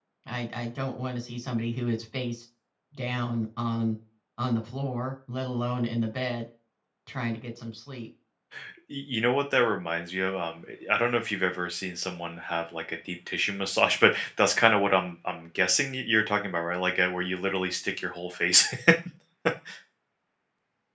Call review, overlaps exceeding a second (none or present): none